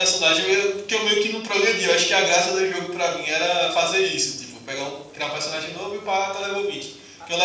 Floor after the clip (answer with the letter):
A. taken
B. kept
B